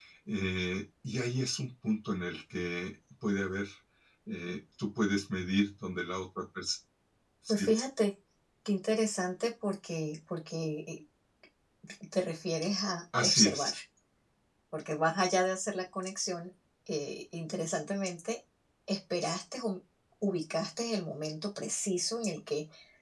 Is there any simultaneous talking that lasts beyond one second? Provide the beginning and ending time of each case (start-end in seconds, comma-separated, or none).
none